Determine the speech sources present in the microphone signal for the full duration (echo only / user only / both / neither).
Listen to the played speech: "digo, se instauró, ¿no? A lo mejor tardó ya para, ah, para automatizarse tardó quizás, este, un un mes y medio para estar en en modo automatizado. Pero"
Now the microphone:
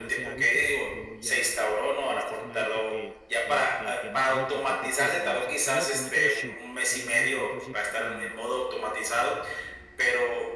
both